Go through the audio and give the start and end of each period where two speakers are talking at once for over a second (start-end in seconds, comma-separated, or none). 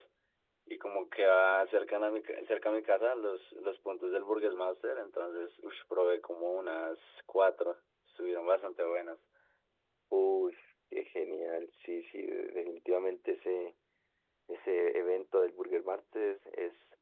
none